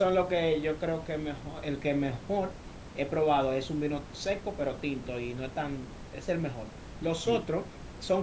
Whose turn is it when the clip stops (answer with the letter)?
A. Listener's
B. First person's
B